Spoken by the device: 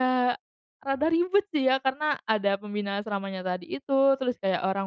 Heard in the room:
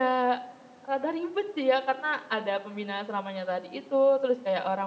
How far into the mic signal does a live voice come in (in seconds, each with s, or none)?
none